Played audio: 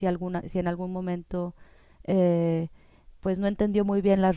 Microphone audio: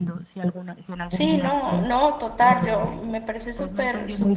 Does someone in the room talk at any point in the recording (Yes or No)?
Yes